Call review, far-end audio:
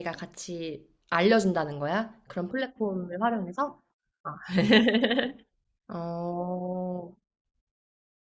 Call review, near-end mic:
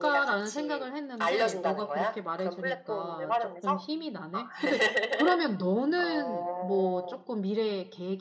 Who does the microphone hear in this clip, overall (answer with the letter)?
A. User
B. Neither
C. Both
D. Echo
C